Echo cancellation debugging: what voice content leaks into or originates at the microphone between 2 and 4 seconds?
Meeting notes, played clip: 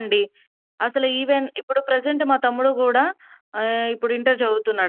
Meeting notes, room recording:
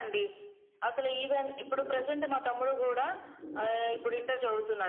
echo only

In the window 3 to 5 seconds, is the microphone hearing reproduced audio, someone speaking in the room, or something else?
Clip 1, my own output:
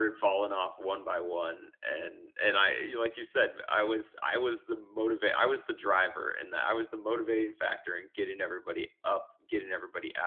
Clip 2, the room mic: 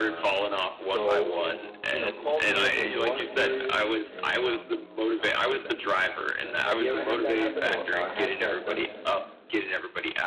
both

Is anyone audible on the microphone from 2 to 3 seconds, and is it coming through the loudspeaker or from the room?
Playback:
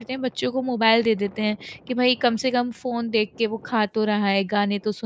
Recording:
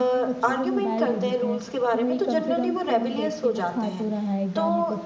both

